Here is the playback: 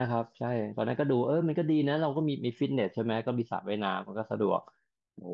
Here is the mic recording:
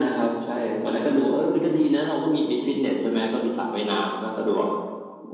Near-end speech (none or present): none